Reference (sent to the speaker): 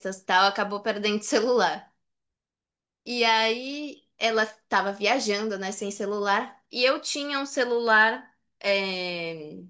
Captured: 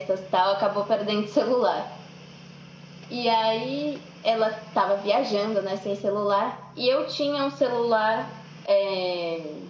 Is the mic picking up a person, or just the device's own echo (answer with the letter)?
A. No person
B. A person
A